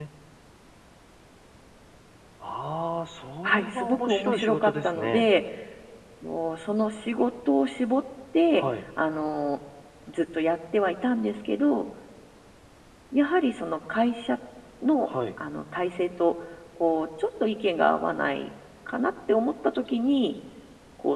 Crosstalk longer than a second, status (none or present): present